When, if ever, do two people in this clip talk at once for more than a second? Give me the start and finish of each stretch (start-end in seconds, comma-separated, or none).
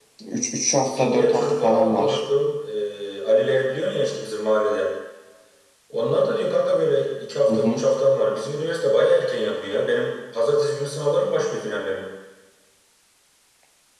0.8-2.2